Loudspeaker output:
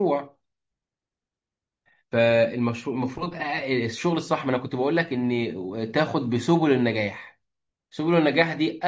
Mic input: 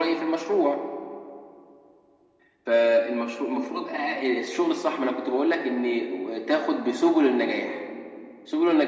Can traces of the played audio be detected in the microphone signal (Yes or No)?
Yes